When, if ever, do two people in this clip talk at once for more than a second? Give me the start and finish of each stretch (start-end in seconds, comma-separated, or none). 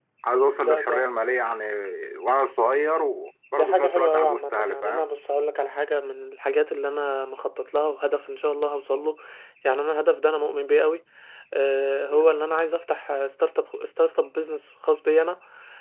3.5-5.0